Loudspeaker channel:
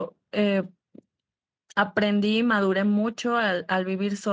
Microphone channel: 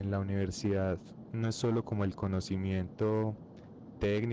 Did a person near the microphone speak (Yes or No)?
Yes